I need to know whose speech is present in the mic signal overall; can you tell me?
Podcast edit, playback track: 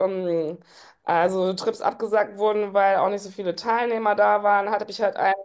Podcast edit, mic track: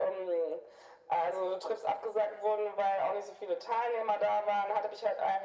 echo only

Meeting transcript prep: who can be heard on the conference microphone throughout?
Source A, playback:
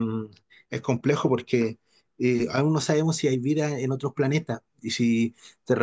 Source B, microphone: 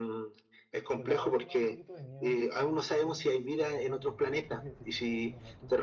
both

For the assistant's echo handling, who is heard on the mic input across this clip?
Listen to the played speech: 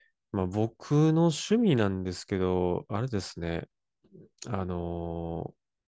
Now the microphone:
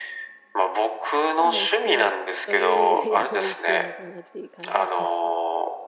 both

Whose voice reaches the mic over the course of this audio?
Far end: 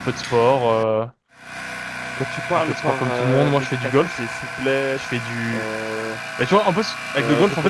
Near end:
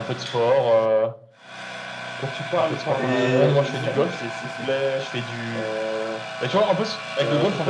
both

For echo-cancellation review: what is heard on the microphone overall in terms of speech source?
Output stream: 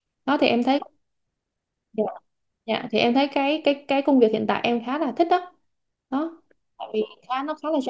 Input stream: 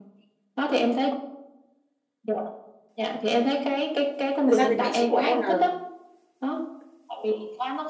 both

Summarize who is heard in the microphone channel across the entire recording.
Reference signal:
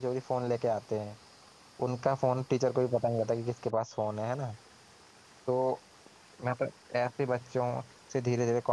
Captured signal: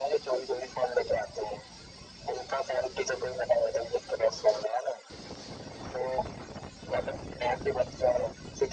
echo only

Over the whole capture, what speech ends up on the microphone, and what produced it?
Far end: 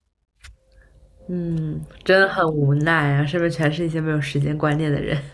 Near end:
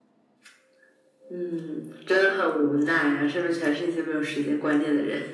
echo only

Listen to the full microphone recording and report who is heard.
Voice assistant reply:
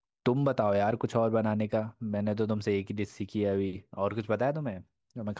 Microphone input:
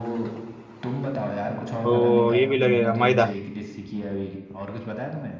both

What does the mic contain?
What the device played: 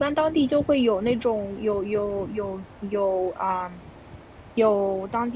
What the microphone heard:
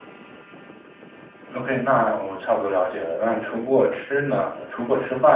user only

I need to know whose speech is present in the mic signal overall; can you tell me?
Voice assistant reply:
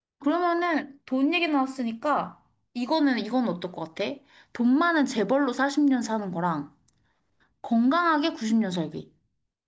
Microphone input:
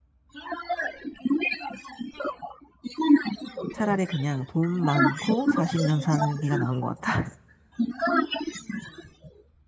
both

